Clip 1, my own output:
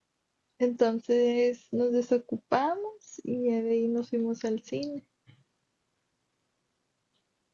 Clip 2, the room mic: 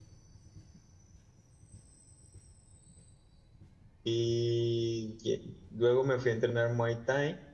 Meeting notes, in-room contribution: present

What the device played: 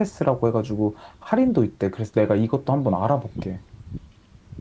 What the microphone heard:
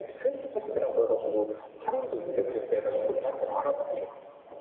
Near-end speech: none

